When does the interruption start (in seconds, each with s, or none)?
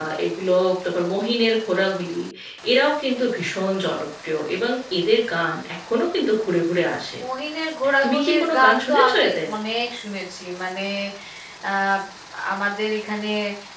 8.0 s